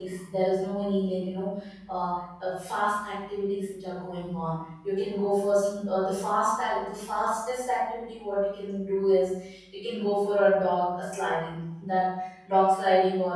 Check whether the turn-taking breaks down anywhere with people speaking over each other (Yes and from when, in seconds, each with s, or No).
No